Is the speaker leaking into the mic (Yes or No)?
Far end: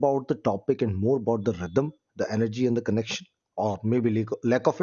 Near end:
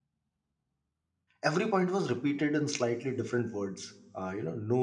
No